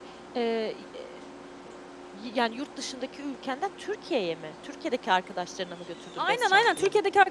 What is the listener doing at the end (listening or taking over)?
taking over